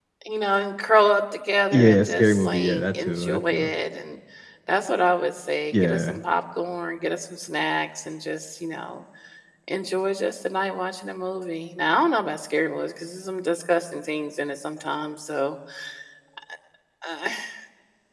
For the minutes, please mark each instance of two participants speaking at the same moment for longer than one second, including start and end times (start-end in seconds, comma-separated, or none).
1.7-3.7